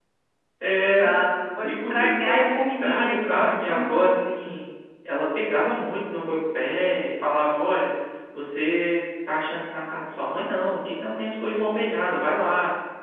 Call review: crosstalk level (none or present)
present